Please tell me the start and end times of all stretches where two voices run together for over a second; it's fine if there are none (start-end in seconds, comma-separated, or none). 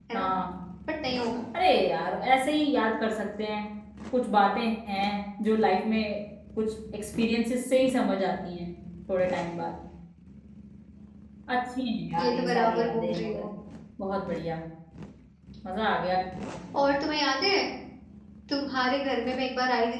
12.2-13.5